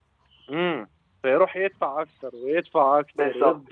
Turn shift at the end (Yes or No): Yes